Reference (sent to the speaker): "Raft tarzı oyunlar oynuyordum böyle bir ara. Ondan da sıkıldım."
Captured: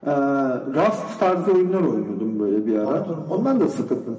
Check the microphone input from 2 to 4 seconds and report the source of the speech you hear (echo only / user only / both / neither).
both